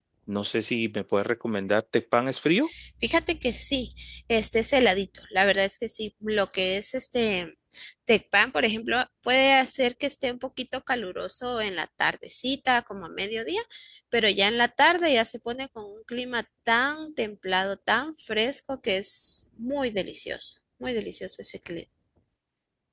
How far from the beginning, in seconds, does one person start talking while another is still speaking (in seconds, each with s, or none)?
none